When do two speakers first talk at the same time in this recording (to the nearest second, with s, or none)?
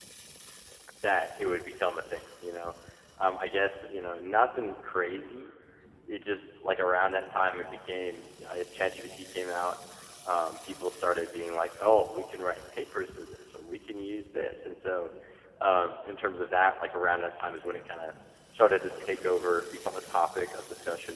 none